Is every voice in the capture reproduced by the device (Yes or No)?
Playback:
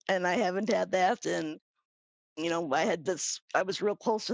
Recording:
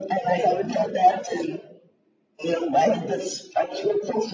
Yes